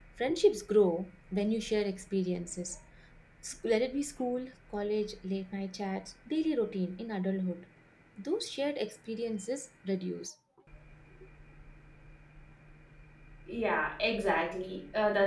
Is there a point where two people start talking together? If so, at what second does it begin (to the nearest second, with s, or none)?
none